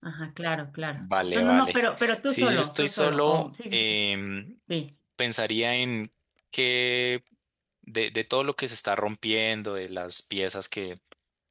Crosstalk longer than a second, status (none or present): present